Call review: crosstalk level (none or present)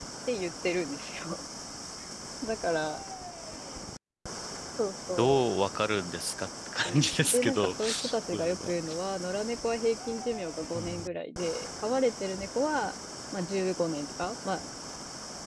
present